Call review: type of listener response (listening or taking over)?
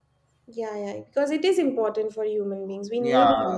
taking over